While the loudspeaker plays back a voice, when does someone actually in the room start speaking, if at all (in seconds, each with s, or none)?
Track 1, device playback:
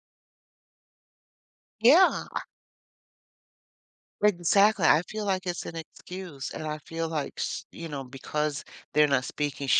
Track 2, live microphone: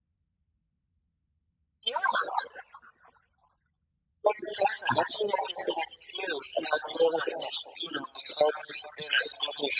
none